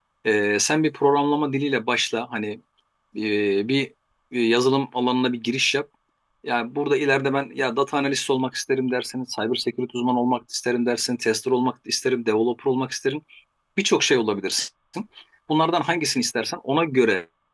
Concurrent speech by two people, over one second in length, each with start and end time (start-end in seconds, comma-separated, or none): none